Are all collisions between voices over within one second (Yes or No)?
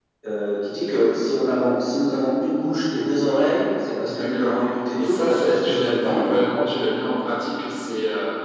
No